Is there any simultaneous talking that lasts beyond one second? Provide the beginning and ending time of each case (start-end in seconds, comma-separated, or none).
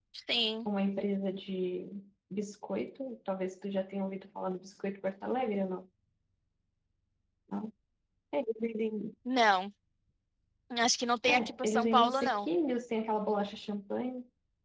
11.3-12.5